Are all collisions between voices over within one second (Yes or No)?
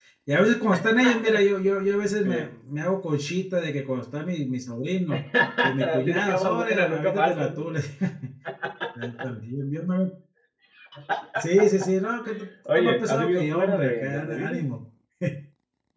No